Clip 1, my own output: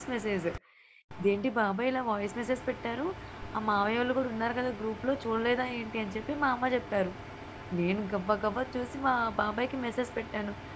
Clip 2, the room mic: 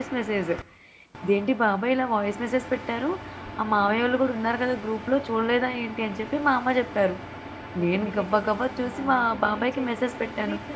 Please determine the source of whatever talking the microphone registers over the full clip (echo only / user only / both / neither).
both